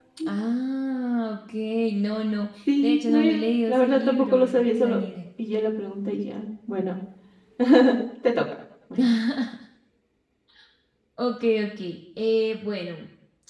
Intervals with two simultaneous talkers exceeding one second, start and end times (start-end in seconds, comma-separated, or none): 2.8-5.0